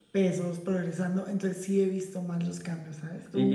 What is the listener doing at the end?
taking over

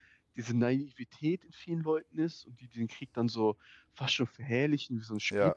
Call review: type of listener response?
listening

